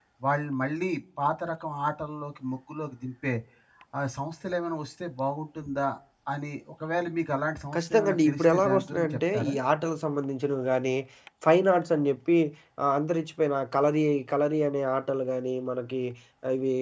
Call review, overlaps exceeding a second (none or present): present